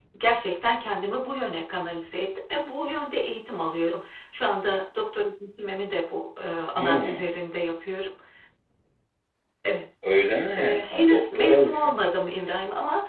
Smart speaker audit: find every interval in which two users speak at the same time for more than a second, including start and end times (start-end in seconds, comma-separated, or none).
10.6-12.0